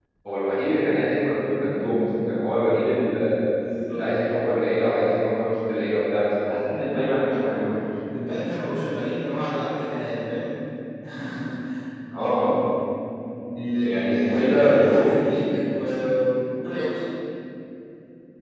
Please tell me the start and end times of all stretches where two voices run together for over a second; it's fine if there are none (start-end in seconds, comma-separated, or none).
13.8-15.4